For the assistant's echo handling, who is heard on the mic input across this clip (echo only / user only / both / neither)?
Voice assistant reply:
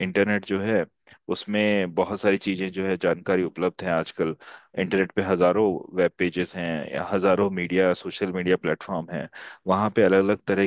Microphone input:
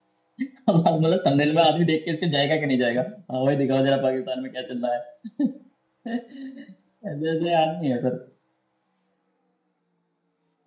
user only